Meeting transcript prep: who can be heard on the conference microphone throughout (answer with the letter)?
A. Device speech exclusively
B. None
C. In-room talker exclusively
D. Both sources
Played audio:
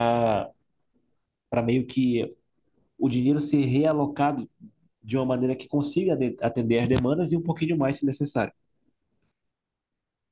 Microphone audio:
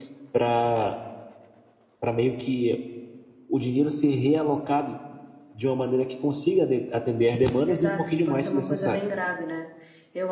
D